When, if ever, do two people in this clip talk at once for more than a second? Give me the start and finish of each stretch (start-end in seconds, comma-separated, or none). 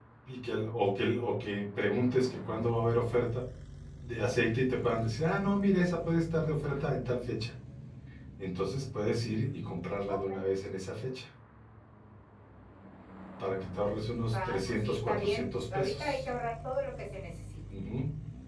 14.3-16.2